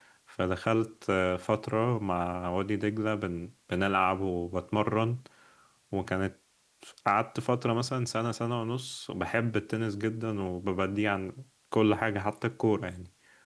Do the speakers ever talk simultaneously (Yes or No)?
No